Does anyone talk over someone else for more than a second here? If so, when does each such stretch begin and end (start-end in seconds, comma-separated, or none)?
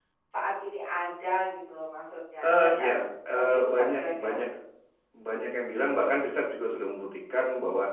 2.4-4.4